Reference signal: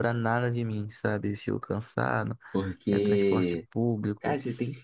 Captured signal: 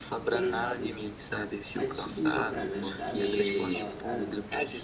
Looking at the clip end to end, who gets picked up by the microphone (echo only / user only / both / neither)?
both